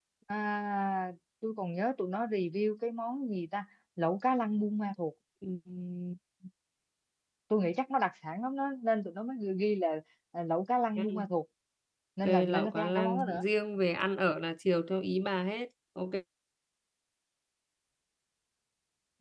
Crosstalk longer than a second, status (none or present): present